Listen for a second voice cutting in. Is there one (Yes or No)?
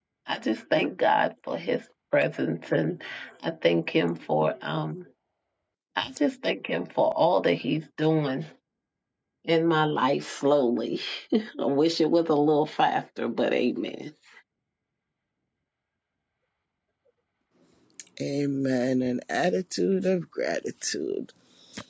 No